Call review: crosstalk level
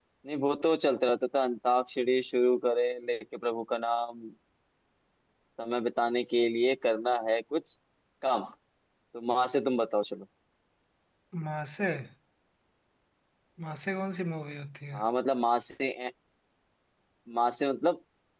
none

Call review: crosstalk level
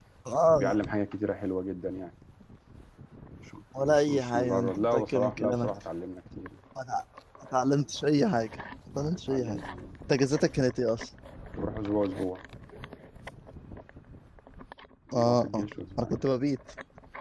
present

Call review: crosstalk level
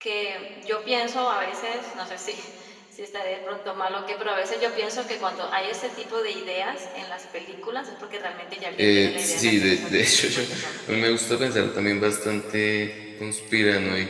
present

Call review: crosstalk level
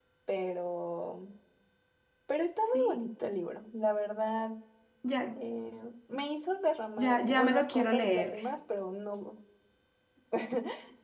present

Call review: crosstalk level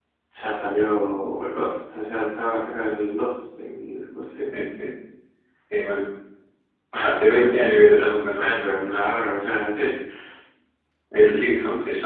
present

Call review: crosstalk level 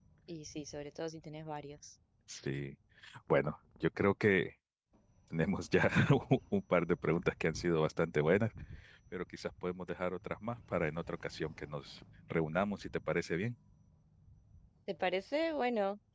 none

